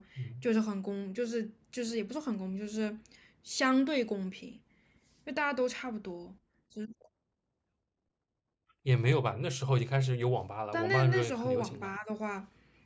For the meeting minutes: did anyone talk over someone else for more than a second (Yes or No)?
Yes